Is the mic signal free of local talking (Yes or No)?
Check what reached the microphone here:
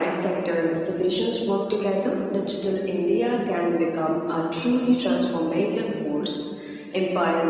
Yes